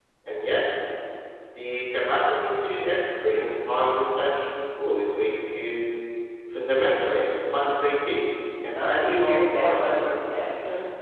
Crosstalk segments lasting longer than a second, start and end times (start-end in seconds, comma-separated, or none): 8.7-10.0